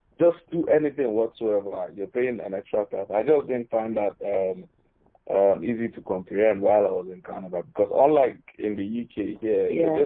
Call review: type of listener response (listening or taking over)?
listening